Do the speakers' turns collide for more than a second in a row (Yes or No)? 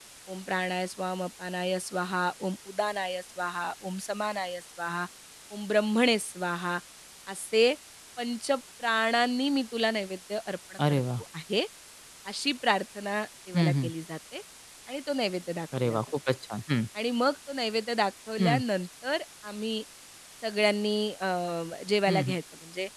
No